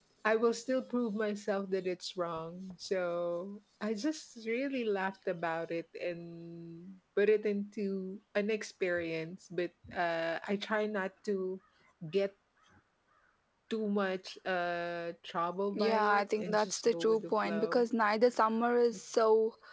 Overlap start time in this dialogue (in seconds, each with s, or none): 15.7 s